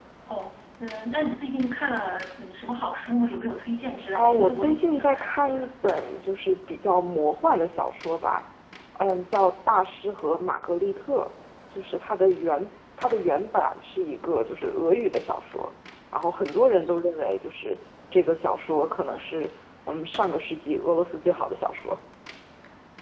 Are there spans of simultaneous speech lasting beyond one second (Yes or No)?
Yes